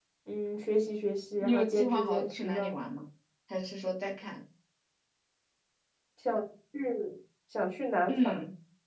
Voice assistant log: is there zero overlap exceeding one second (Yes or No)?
No